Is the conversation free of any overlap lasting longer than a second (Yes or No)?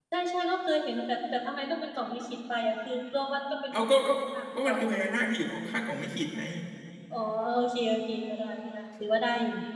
Yes